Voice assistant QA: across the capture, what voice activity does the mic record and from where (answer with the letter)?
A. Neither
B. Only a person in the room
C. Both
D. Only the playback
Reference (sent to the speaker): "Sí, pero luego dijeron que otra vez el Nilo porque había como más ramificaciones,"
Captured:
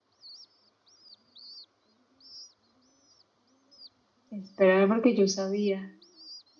B